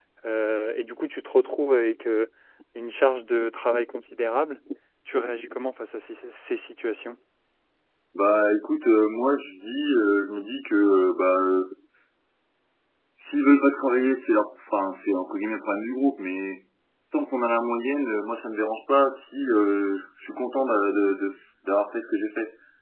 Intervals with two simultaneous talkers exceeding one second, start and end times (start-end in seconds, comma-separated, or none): none